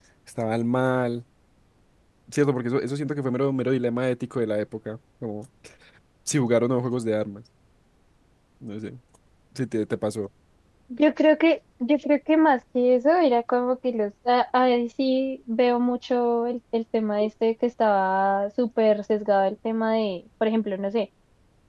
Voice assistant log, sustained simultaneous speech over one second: none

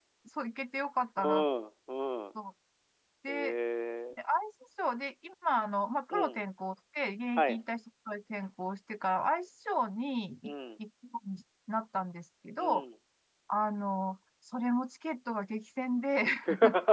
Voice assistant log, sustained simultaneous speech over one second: none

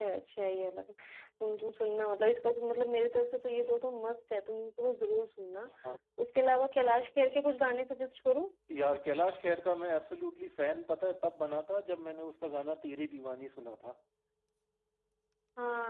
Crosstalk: none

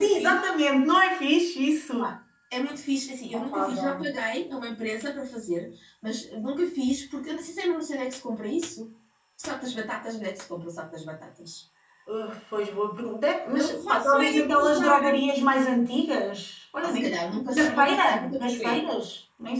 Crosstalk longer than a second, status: present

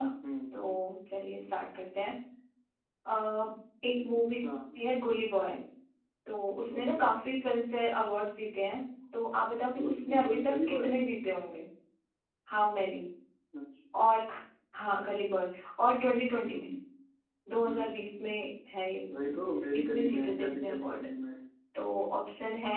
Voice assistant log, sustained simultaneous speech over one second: present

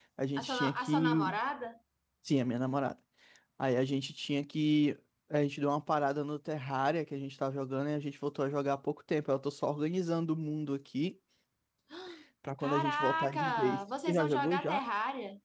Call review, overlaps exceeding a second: present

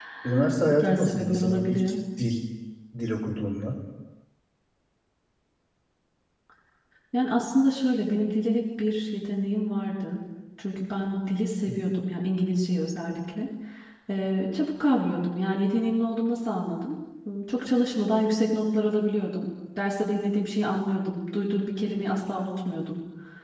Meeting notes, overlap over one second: present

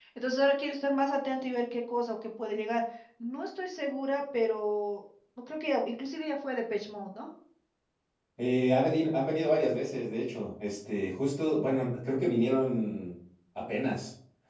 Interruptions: none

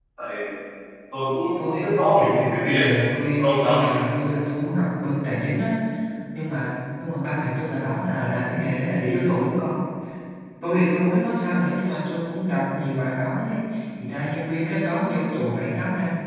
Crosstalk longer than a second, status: present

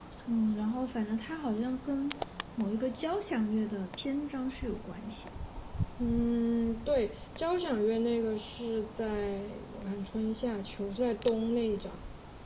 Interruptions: none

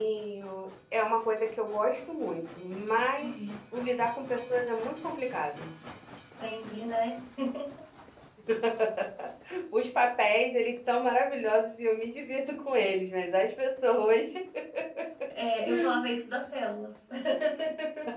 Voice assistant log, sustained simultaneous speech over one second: none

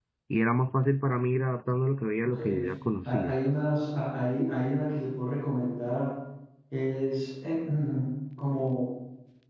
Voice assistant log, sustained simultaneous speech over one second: none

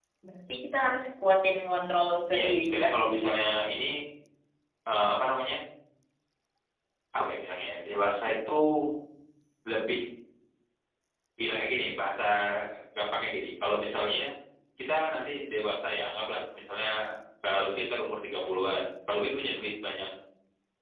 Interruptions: present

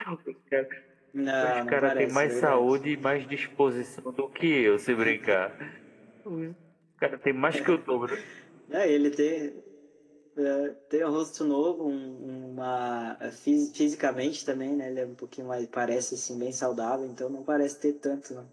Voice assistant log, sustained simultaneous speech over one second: present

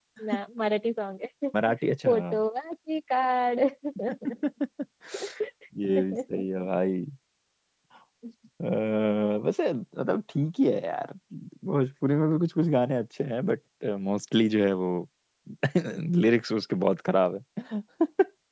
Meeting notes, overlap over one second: none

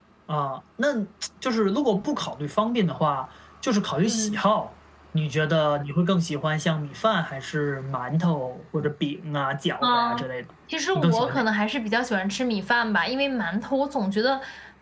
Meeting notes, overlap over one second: none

